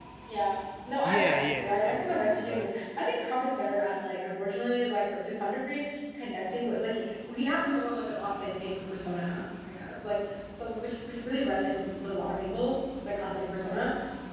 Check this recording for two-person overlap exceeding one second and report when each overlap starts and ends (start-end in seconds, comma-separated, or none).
1.0-2.7